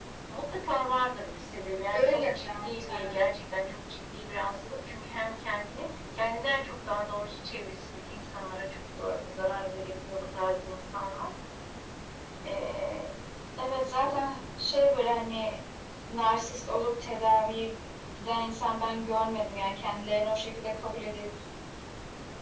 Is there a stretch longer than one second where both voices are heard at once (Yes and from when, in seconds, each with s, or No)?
Yes, from 1.9 s